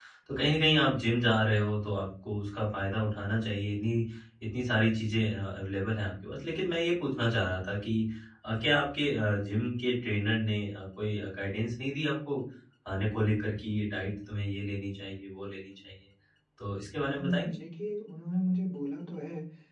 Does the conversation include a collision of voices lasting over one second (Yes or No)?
No